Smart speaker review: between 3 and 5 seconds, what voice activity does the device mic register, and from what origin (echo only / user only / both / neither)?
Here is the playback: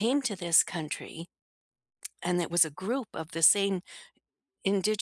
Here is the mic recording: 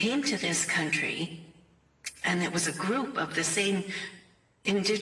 echo only